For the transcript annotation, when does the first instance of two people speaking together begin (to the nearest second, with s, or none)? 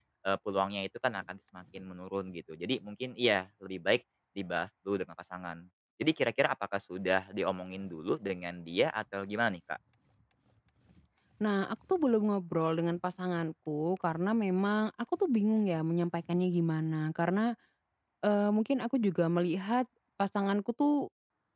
none